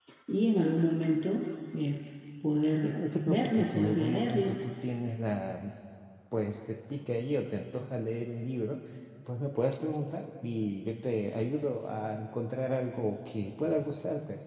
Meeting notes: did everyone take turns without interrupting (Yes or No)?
No